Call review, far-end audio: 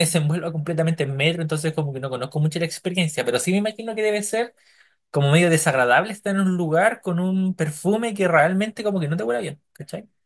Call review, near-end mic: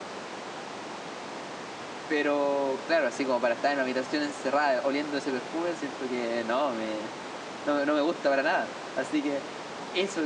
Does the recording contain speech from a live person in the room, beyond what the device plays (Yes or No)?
Yes